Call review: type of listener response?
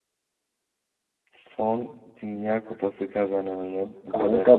taking over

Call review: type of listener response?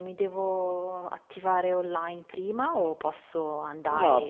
taking over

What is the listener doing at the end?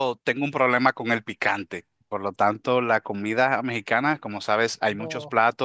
listening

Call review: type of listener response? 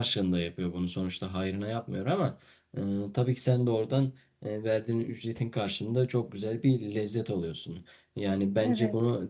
listening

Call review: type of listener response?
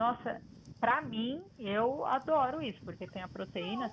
listening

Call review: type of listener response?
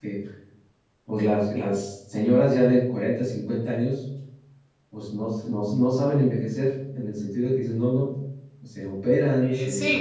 taking over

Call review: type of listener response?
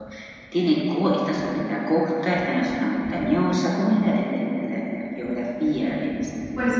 taking over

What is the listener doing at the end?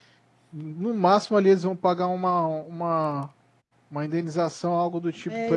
taking over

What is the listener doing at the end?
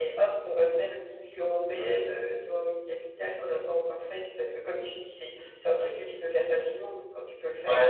taking over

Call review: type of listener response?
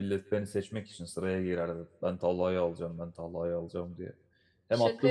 listening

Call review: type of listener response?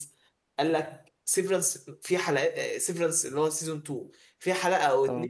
listening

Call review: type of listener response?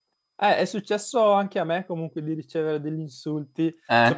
listening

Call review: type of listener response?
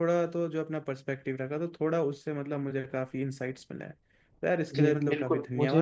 taking over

